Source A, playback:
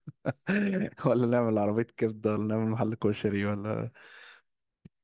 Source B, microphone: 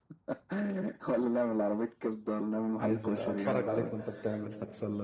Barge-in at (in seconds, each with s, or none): 2.8 s